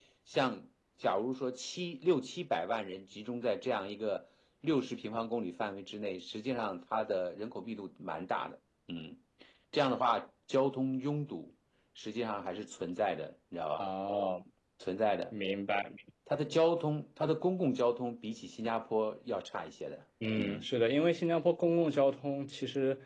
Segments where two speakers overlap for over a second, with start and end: none

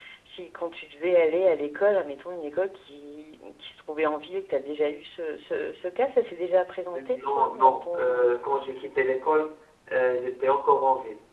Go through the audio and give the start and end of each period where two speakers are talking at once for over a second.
6.9-8.3

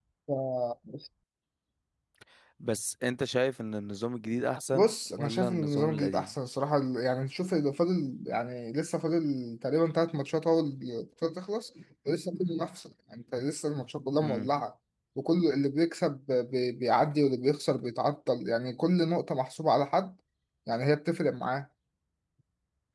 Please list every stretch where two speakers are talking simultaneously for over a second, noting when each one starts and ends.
4.7-6.3

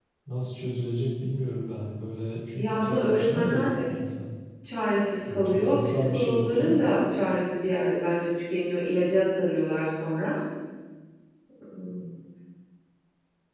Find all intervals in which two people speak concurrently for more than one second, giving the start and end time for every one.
2.6-3.9, 5.3-6.8

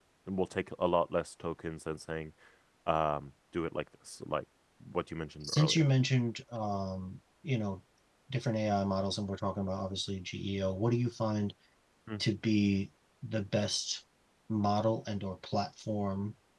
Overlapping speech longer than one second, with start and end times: none

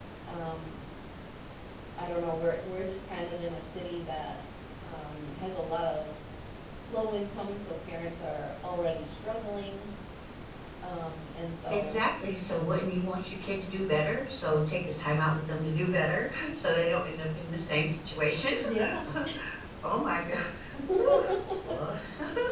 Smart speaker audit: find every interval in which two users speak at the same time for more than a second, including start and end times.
none

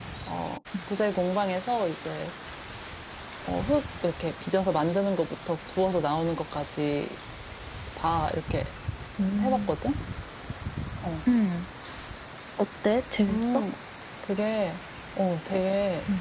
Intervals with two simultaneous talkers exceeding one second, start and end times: none

